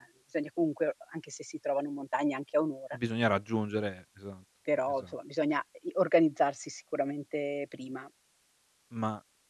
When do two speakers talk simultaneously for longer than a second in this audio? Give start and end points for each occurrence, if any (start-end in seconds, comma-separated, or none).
none